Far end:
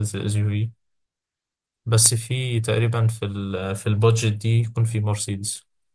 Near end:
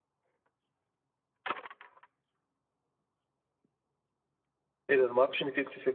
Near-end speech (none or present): present